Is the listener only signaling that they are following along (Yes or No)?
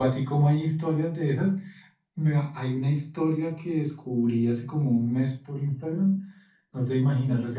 Yes